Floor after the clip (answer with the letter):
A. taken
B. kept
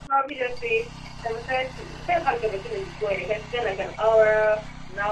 B